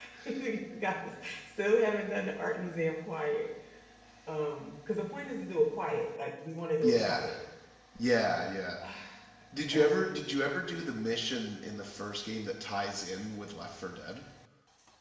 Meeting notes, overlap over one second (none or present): none